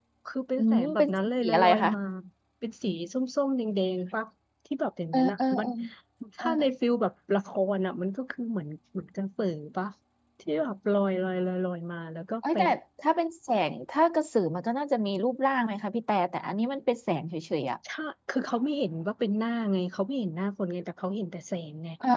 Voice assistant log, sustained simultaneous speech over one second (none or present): present